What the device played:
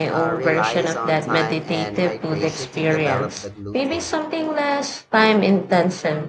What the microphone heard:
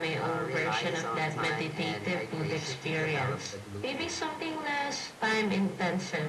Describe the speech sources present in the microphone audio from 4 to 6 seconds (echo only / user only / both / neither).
echo only